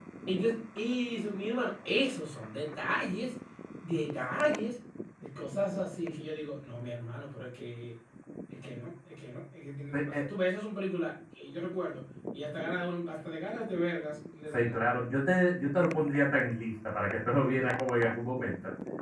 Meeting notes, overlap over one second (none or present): none